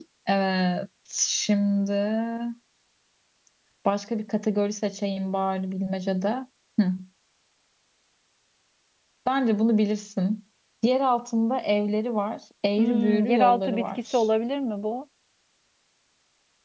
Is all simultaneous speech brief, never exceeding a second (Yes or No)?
No